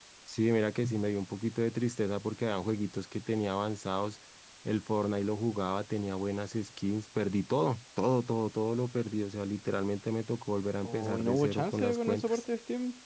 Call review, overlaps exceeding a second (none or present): present